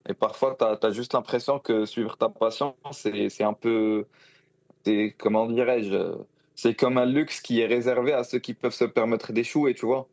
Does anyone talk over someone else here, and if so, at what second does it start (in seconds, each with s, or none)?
none